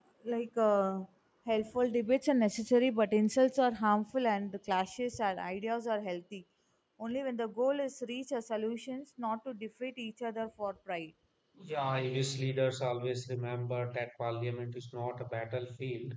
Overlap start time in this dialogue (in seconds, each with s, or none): none